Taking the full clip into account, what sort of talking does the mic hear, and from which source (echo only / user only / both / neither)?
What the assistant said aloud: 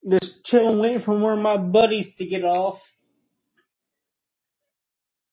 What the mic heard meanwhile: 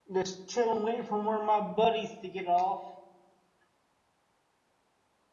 echo only